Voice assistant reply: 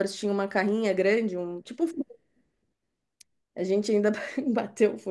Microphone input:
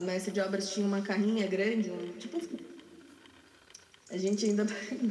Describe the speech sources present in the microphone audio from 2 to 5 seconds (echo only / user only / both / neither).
echo only